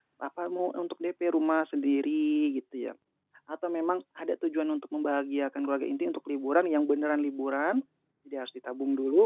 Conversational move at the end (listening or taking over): listening